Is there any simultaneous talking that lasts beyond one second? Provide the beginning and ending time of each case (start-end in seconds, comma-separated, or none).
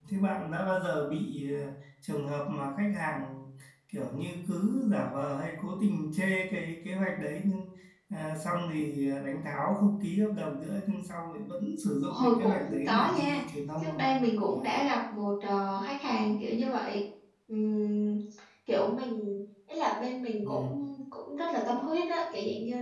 12.1-13.4